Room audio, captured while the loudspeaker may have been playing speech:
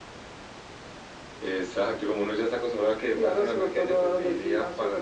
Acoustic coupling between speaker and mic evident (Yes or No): Yes